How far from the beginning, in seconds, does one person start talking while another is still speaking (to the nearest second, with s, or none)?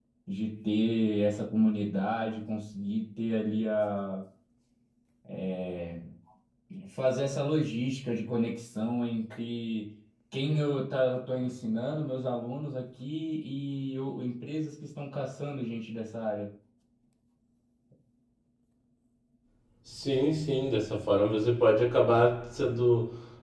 none